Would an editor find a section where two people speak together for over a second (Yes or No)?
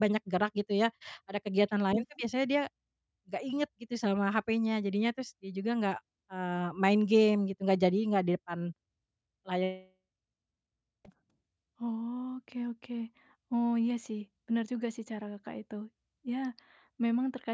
No